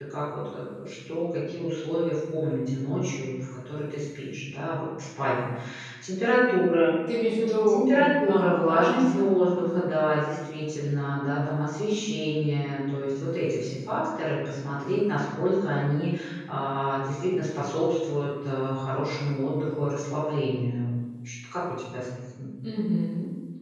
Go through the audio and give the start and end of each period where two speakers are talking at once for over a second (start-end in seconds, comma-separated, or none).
7.7-9.9